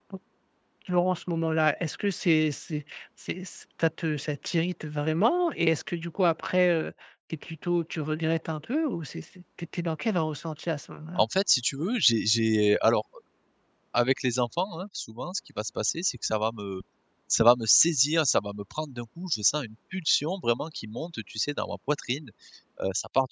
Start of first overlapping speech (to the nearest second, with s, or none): none